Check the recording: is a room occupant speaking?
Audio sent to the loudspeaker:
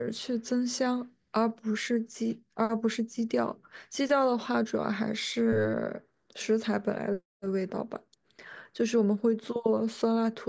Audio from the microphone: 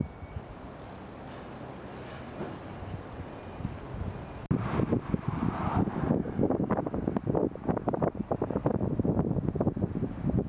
No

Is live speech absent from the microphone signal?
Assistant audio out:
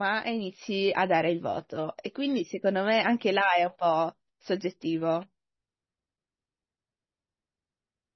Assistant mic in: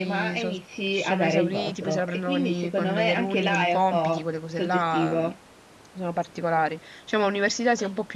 No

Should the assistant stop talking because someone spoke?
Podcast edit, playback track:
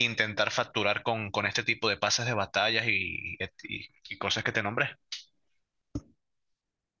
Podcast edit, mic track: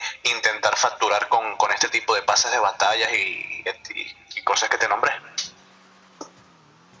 No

